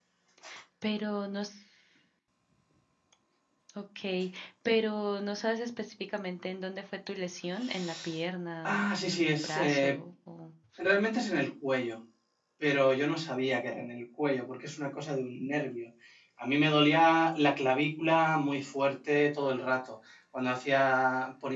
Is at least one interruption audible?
Yes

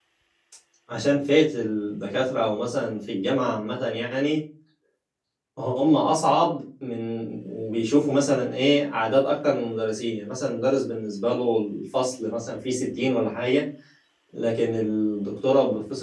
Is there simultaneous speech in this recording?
No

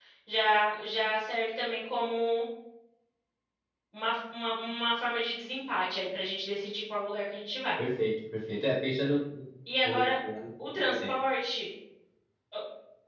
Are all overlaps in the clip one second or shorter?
Yes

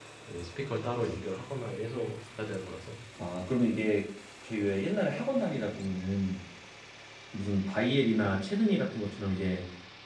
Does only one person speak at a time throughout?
Yes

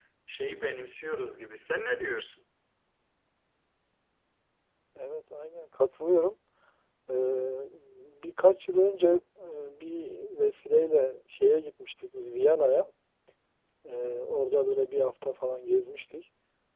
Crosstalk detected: No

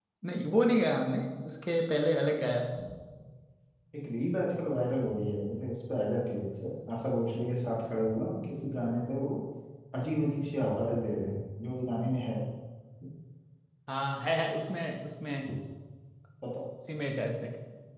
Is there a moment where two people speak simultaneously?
No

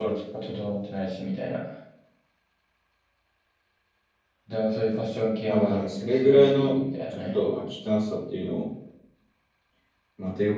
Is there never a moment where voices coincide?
No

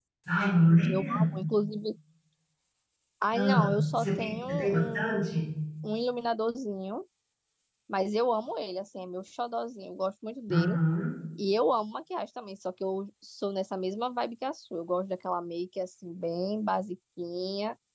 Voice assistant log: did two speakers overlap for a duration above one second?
Yes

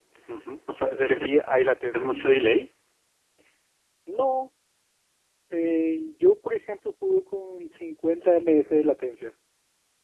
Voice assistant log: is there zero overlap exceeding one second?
Yes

